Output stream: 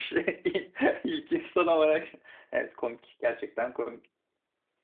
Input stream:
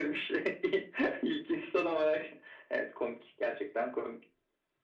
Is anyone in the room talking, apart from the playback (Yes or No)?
No